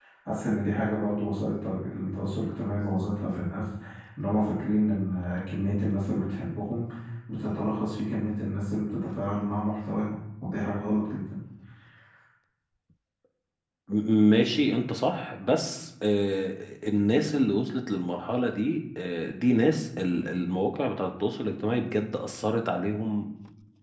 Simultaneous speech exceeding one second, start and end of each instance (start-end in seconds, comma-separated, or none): none